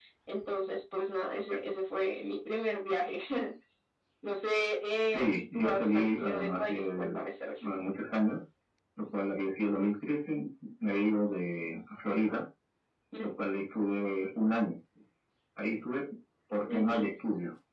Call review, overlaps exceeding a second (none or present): present